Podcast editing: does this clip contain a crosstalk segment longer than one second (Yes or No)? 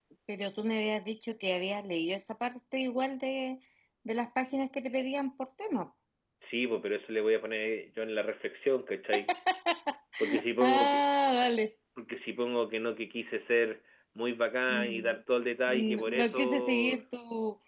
Yes